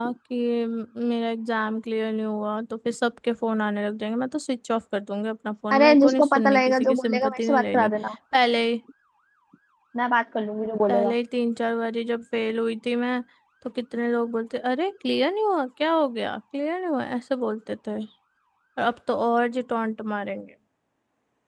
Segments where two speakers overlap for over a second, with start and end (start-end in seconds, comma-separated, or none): 5.7-7.9